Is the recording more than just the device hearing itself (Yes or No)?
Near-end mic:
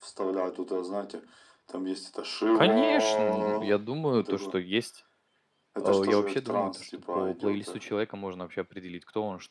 Yes